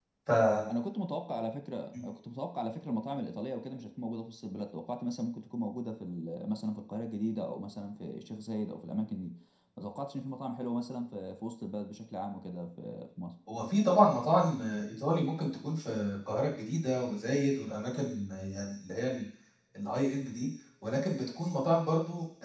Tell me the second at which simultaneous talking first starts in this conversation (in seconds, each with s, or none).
none